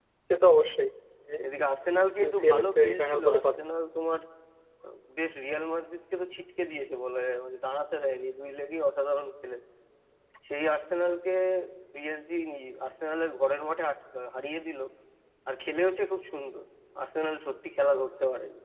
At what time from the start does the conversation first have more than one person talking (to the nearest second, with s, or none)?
2 s